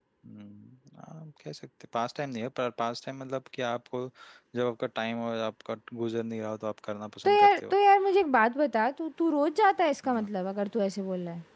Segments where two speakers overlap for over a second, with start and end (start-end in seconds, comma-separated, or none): none